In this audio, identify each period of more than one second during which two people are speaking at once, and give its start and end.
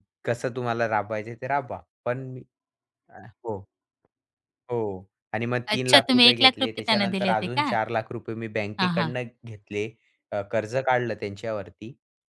5.8-7.7

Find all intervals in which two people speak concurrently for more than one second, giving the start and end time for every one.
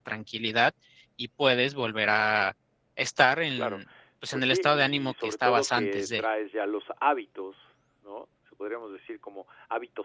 4.3-6.2

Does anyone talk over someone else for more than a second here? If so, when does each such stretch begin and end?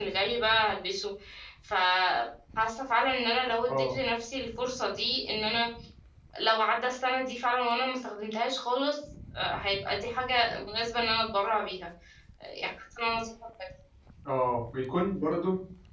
none

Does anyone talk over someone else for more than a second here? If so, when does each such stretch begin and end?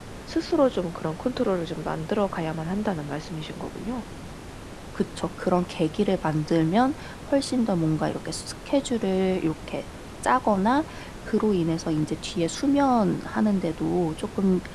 none

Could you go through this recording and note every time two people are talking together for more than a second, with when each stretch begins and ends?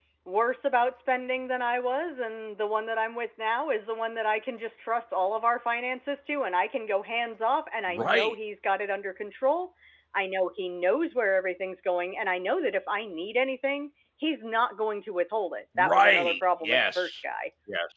15.8-17.2

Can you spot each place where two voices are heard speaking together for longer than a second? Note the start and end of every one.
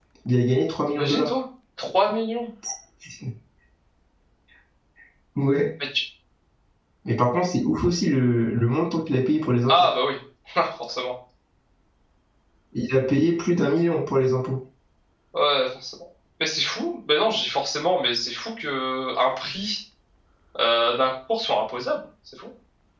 none

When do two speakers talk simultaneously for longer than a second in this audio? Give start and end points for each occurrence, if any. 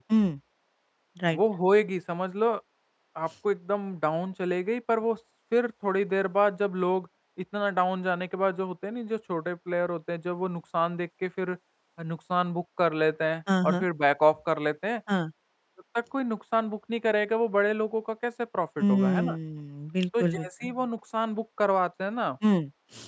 none

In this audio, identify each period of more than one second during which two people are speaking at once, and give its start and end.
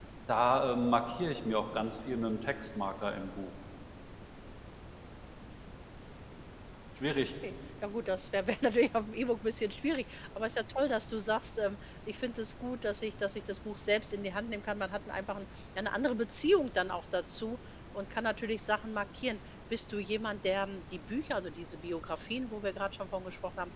none

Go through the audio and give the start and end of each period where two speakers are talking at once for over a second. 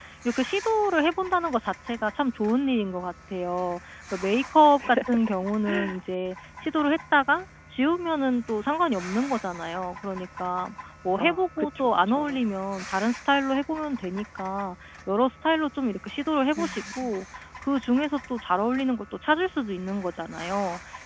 11.2-12.4

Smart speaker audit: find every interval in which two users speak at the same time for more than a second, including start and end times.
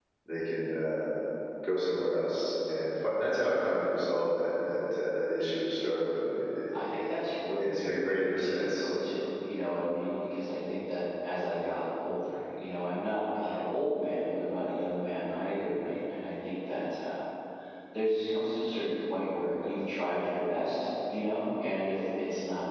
7.6-8.9

